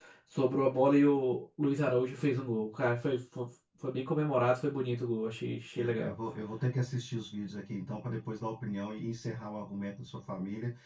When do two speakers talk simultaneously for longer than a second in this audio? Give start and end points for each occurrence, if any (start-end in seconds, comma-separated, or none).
none